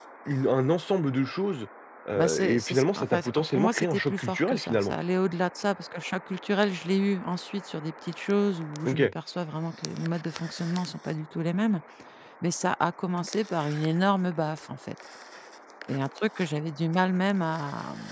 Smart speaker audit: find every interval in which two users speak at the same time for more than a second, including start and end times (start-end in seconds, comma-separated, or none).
2.1-4.9